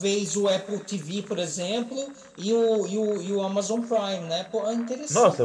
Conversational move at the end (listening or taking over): taking over